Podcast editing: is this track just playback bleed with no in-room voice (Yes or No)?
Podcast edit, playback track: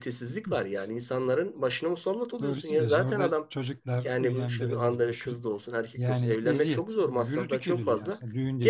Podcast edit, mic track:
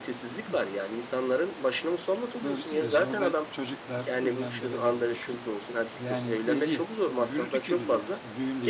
Yes